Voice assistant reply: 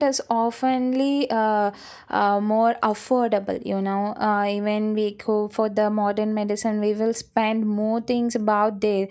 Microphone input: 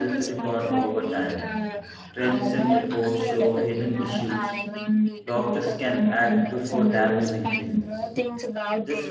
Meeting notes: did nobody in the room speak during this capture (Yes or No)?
No